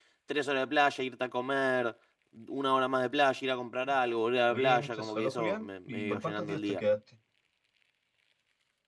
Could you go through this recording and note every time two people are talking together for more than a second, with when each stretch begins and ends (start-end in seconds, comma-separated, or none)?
4.5-6.8